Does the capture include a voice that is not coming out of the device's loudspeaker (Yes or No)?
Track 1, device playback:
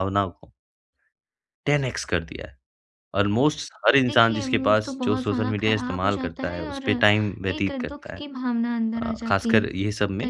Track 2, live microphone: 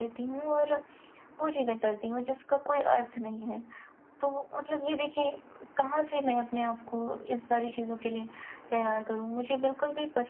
Yes